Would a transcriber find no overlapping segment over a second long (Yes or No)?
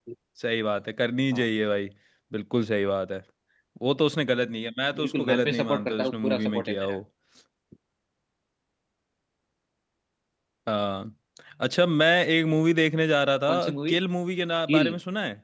No